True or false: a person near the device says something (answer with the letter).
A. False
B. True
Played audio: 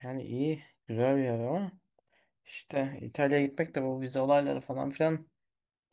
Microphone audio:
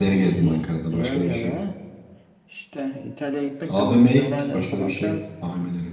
B